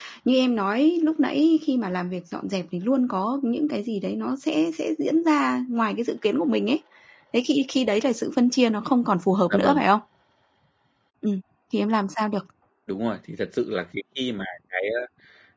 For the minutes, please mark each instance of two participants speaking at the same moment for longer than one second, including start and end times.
none

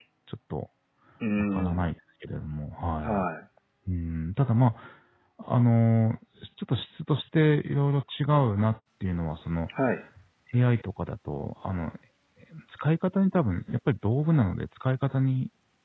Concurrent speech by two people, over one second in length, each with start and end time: none

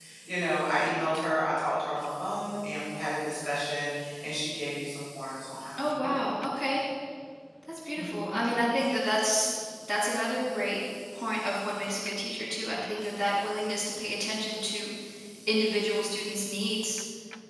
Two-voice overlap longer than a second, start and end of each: none

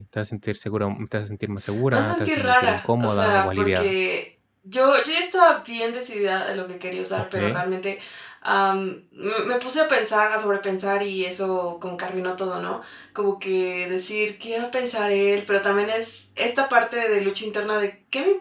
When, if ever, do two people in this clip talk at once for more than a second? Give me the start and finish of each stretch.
1.9-3.9

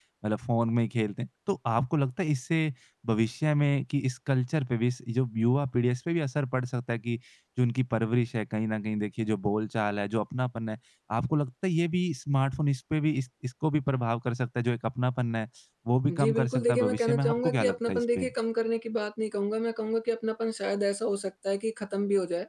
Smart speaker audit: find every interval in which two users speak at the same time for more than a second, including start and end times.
16.1-18.3

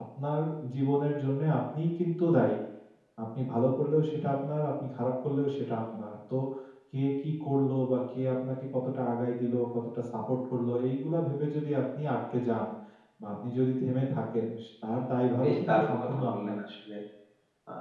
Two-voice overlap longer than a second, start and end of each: 15.3-16.6

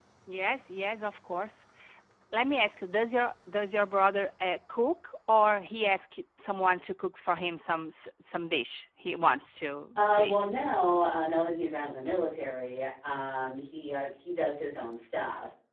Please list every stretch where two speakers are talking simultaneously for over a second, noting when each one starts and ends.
none

